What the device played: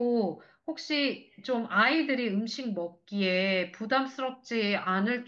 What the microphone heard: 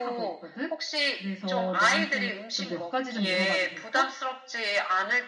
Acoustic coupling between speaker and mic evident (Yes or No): Yes